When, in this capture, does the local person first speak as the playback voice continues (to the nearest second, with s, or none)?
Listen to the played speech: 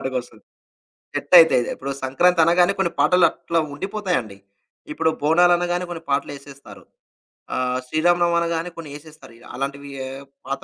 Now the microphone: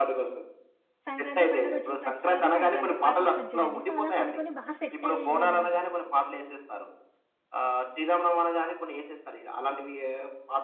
1 s